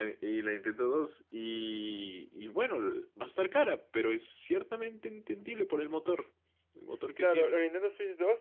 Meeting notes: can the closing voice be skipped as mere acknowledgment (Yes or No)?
No